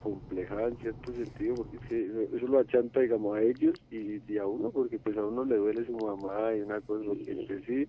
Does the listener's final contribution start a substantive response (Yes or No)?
No